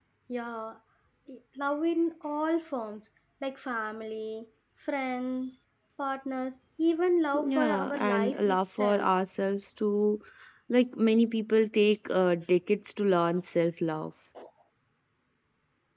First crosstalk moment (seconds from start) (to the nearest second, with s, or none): 7 s